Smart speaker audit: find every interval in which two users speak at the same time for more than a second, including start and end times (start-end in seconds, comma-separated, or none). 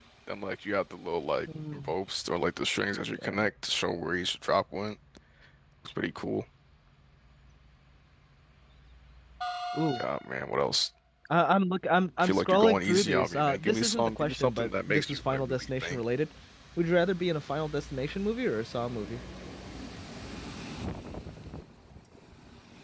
12.2-16.0